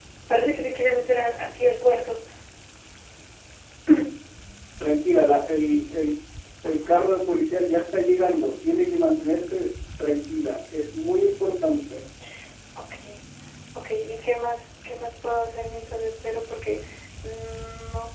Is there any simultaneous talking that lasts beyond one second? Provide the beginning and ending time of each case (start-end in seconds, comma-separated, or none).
none